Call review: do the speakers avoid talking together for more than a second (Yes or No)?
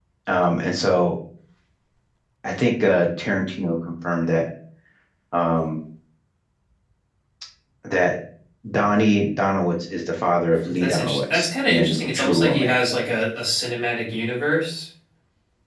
No